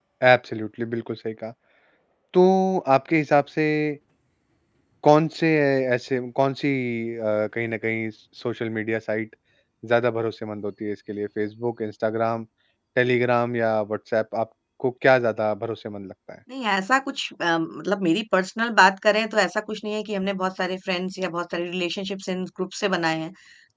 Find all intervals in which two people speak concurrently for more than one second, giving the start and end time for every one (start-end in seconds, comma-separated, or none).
none